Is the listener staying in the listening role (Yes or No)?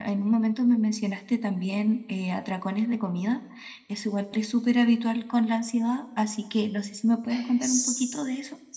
No